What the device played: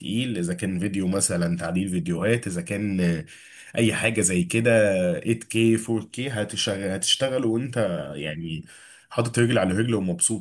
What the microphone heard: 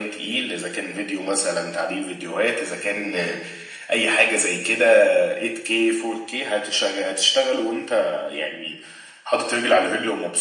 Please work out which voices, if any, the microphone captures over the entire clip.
echo only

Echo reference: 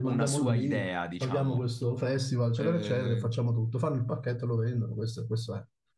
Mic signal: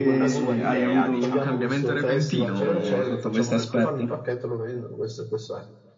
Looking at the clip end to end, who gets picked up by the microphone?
both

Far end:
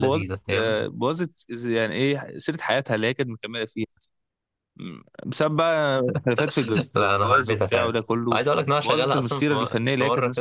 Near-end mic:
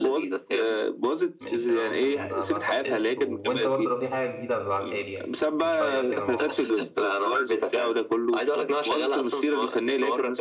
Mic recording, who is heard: both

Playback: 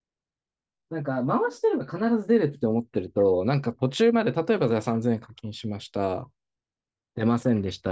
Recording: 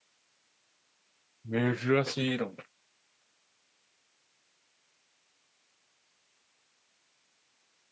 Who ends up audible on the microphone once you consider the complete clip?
user only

